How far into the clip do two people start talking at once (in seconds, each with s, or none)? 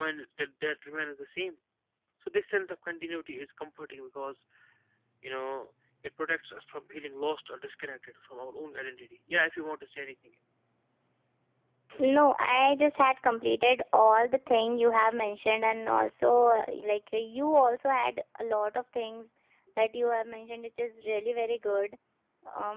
none